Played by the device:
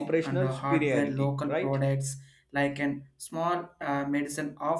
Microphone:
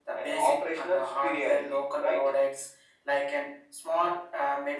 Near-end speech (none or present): none